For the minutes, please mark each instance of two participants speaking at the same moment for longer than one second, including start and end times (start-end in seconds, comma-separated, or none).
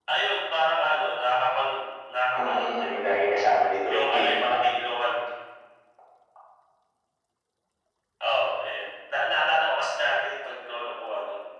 2.4-4.2